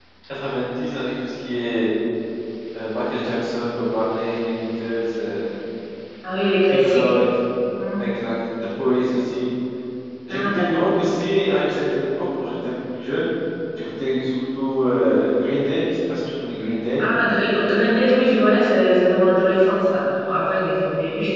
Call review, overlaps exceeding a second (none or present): none